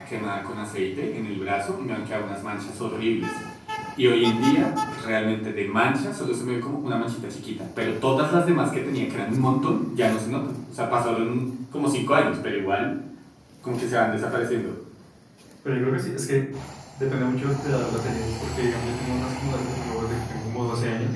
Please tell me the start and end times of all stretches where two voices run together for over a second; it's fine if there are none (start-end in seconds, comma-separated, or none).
none